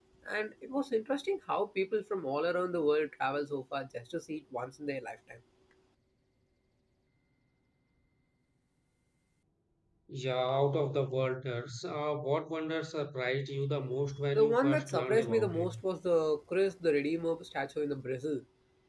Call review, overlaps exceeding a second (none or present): present